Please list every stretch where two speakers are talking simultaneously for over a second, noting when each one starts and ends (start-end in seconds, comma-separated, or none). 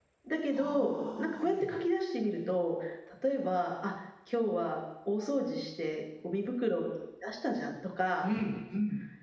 0.5-1.8